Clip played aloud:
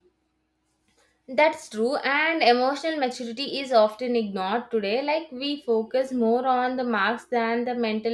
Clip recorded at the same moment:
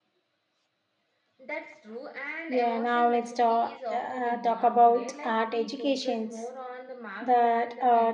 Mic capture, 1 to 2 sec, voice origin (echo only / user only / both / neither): echo only